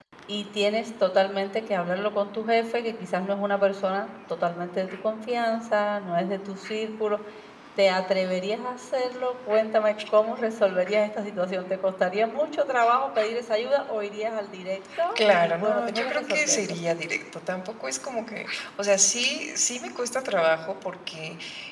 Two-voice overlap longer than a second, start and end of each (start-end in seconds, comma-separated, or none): 15.2-16.7